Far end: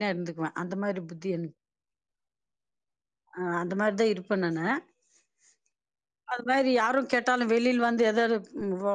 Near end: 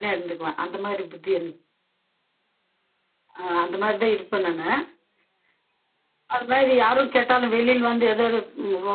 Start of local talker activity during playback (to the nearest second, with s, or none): none